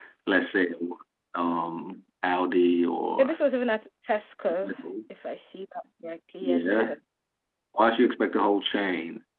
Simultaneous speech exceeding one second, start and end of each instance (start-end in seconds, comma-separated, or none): none